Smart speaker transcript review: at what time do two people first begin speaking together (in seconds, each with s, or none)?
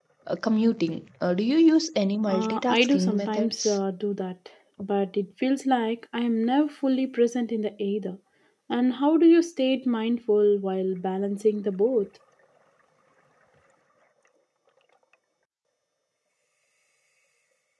2.2 s